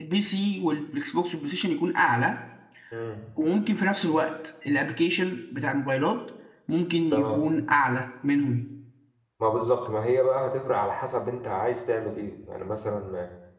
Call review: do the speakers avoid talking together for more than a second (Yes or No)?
Yes